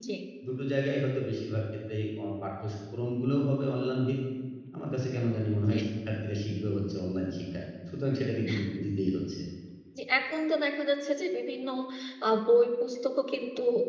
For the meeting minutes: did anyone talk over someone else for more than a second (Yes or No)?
No